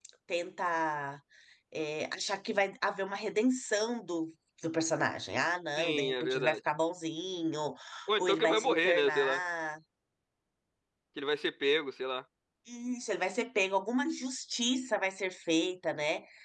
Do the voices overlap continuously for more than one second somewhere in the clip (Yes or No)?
Yes